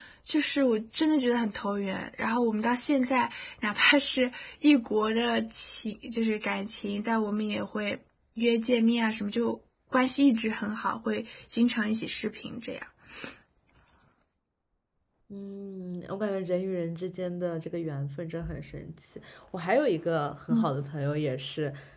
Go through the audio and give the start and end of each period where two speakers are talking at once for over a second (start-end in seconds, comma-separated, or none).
none